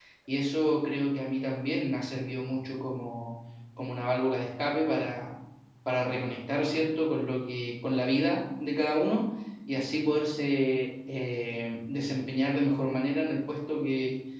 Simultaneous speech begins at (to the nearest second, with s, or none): none